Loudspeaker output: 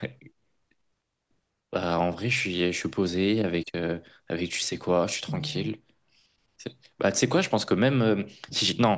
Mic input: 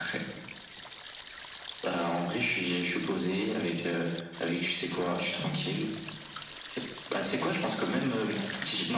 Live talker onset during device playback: none

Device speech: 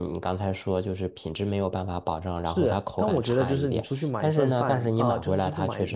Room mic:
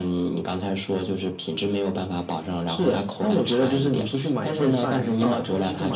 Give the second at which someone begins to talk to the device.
none

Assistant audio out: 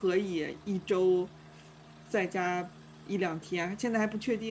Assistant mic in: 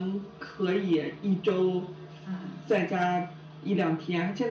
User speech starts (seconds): 2.2 s

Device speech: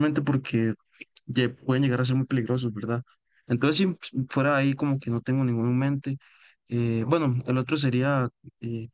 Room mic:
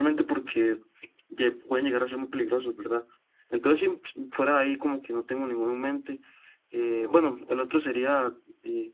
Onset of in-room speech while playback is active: none

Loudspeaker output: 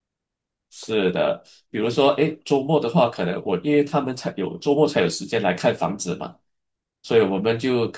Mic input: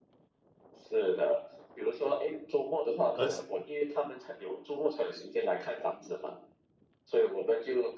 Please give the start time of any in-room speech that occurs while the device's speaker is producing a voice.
3.2 s

